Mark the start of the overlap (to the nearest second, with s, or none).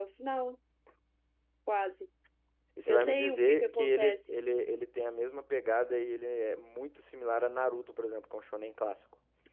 3 s